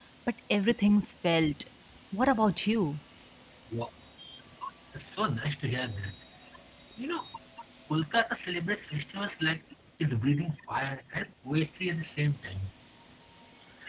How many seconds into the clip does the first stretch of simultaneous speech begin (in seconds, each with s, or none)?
none